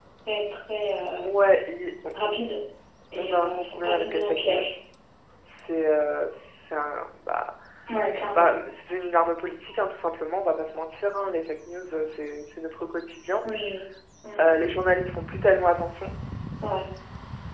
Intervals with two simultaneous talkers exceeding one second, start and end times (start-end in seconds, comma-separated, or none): 3.2-4.6